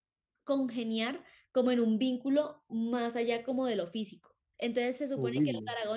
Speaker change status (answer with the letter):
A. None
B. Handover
A